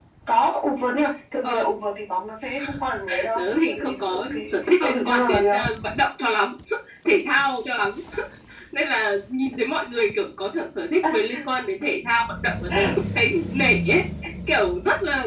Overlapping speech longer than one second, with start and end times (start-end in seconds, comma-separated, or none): 3.4-5.6